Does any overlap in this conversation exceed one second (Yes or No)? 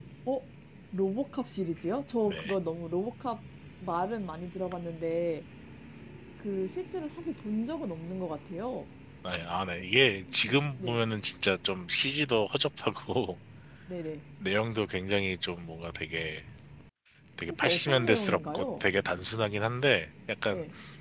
Yes